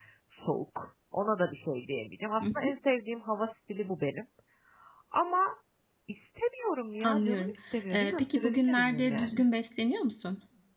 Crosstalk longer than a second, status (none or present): present